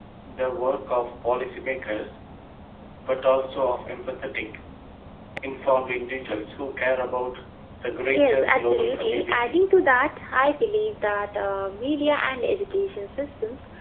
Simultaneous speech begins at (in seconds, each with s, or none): 8.1 s